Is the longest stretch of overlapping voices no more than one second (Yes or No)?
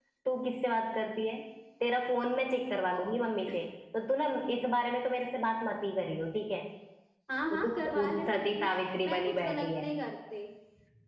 No